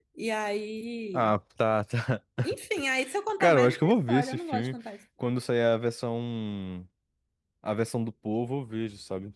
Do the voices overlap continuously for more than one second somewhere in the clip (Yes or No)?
Yes